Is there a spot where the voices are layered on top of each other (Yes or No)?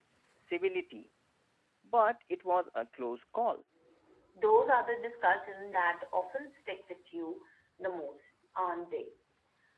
No